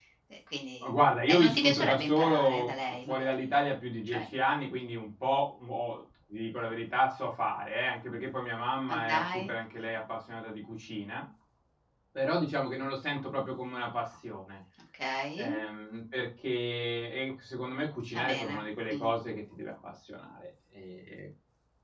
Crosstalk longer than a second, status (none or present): present